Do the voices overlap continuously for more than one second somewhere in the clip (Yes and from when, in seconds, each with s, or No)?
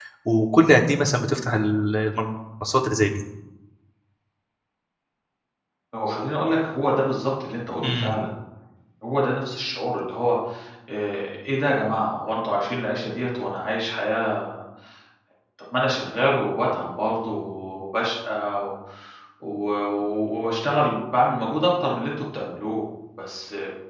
No